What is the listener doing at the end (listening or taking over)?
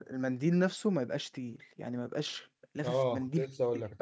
taking over